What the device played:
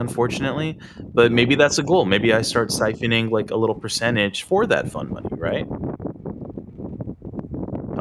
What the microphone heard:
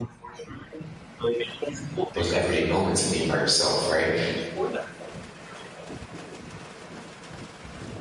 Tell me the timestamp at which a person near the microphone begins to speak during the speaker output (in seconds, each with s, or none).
2.1 s